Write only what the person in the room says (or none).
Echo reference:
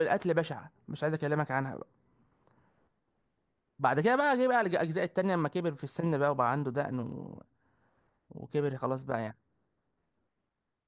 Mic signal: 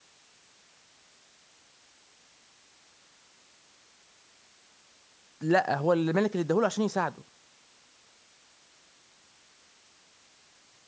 لا هو الملك اللي اداهوله عشان يساعده